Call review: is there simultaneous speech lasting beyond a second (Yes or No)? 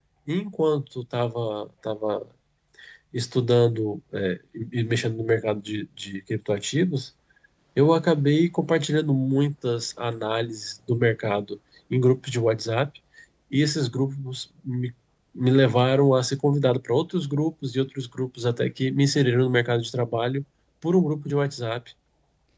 No